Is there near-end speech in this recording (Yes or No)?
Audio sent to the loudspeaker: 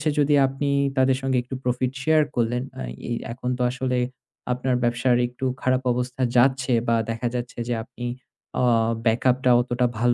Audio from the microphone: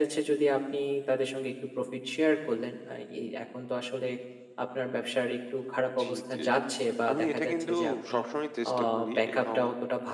Yes